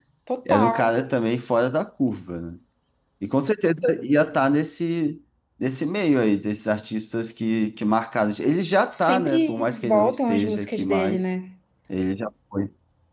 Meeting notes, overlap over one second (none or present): present